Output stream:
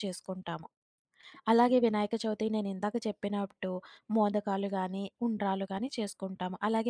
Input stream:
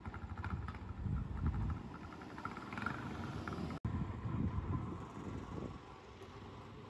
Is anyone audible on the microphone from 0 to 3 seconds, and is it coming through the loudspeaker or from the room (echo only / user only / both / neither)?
neither